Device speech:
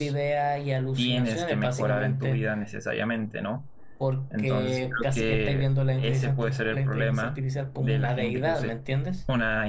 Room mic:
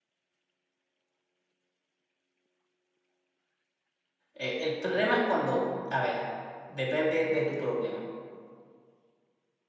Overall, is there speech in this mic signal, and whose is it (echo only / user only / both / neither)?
user only